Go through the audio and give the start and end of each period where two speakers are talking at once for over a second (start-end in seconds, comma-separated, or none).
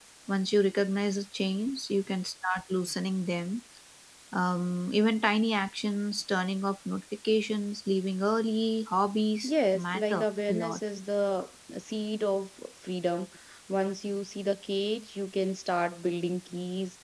9.4-10.8